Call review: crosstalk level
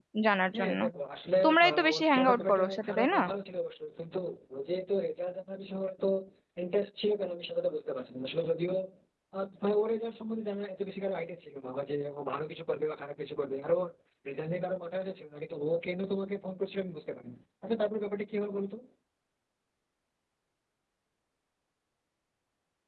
present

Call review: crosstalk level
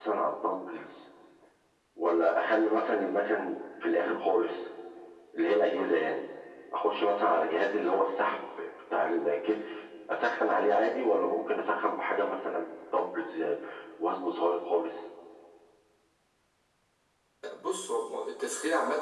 none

